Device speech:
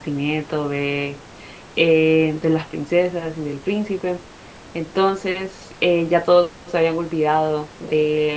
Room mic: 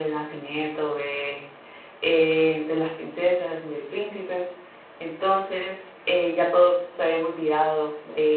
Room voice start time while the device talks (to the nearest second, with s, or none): none